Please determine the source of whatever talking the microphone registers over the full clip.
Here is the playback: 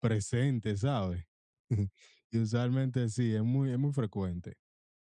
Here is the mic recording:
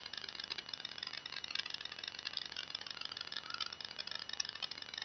neither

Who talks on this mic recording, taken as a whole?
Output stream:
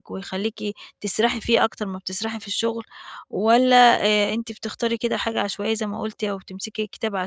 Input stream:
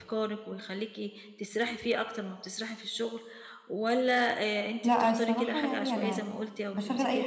both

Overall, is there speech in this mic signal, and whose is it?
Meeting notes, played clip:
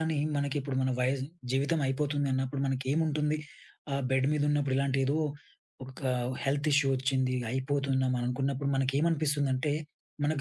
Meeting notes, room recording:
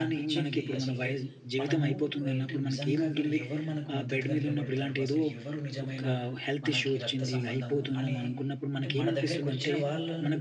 both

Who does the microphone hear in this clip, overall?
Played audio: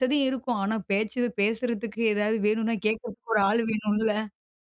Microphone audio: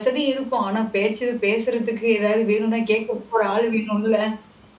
echo only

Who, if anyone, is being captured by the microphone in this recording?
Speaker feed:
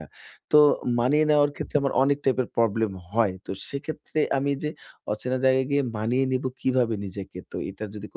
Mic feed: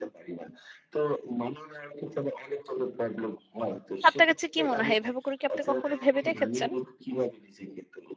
both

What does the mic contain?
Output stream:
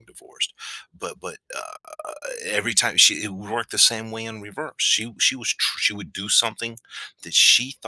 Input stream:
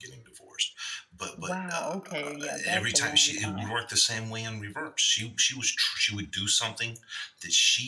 both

